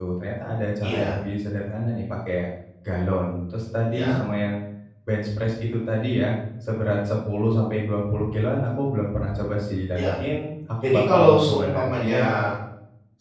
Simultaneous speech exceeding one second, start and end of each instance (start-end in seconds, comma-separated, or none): 10.8-12.3